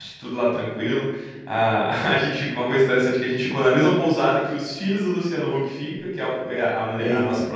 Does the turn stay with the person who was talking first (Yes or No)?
Yes